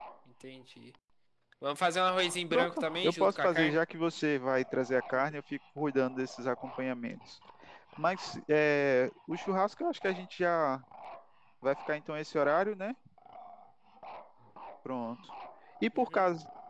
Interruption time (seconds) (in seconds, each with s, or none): 2.5 s